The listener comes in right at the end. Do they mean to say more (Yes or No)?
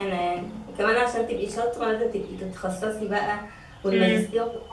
No